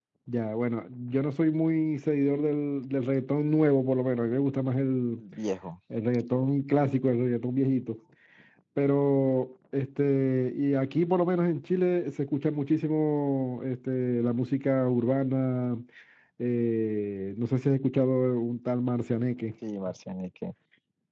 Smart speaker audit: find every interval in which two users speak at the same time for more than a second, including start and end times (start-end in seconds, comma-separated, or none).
none